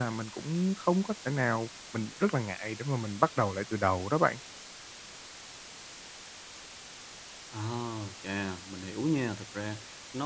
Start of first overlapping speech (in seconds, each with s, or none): none